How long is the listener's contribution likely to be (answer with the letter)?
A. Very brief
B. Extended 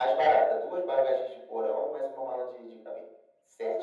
B